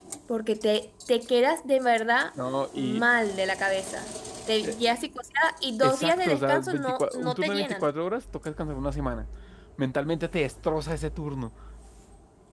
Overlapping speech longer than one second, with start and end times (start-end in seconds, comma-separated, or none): 5.9-7.9